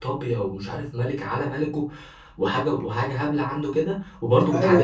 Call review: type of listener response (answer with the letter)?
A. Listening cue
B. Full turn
A